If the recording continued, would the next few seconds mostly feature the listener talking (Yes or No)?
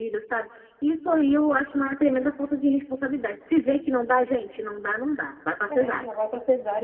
Yes